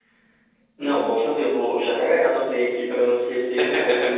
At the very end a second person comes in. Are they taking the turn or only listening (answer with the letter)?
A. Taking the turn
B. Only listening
B